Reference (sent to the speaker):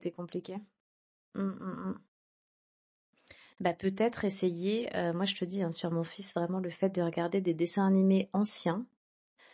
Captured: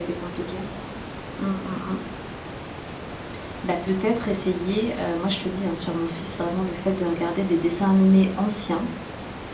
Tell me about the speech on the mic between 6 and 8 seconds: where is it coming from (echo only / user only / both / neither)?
echo only